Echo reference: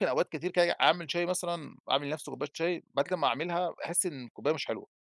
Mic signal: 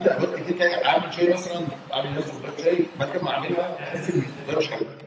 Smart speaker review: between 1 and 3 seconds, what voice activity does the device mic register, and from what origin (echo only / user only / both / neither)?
echo only